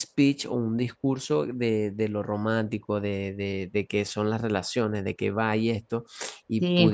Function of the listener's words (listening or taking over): listening